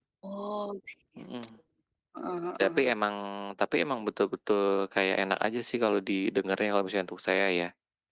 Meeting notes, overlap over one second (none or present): none